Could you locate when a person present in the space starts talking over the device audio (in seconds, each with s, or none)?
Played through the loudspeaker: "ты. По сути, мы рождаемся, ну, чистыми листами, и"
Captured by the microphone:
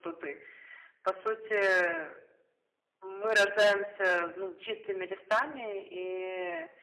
none